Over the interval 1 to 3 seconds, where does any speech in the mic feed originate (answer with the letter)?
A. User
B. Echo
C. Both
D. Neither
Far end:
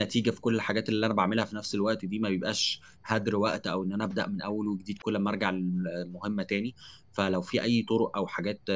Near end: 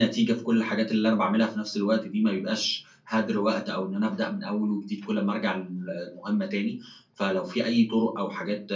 B